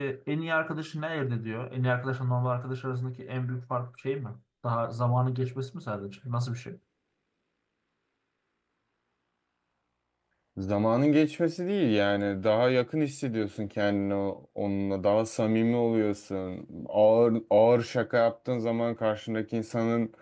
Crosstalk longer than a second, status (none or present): none